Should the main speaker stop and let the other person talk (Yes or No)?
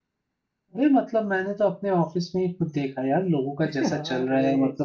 No